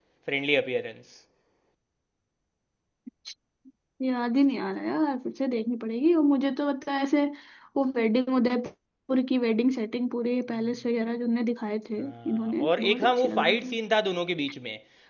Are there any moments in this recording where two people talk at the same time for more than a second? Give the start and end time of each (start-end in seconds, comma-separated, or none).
12.0-13.7